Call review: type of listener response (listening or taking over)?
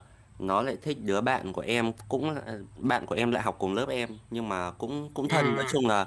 listening